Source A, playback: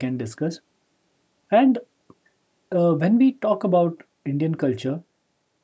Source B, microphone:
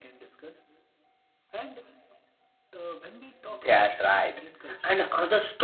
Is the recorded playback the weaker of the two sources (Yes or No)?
Yes